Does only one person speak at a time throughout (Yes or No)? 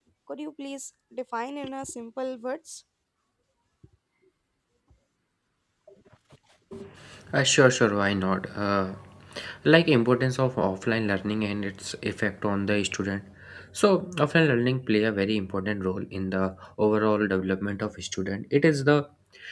Yes